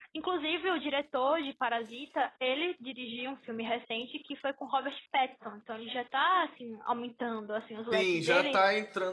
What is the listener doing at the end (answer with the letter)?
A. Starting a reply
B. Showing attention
A